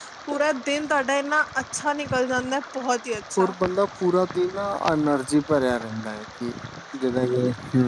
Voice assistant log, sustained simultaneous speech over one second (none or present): none